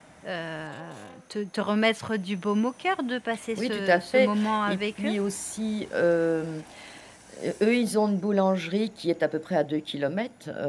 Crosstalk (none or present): present